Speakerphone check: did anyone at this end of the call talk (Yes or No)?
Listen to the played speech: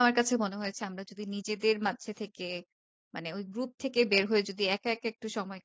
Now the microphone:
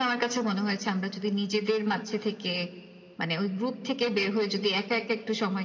No